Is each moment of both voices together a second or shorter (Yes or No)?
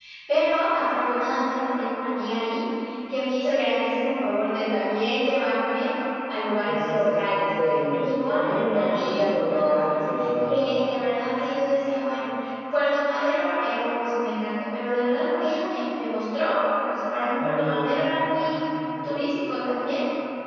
No